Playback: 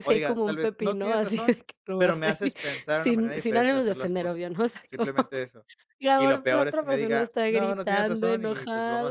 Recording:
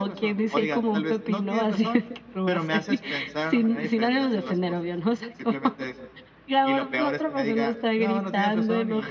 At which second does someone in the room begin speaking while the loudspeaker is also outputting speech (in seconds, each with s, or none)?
none